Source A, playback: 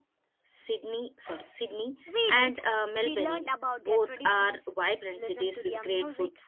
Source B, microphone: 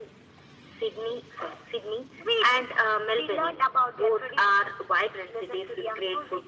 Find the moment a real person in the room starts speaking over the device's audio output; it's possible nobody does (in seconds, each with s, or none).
none